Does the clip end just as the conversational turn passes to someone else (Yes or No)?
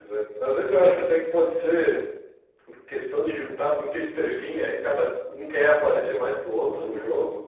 No